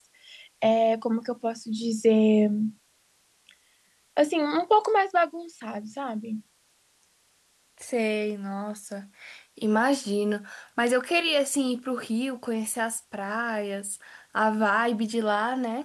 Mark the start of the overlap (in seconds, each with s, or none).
none